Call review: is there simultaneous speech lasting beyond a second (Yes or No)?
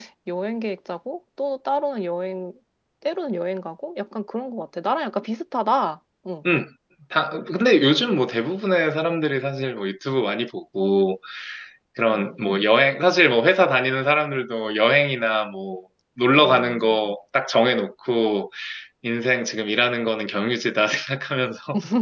No